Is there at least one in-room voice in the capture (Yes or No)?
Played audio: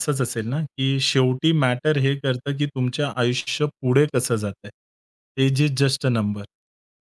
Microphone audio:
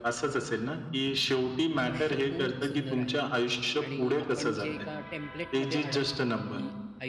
Yes